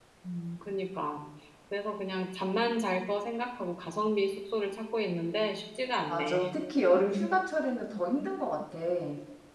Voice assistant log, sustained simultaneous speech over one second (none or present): none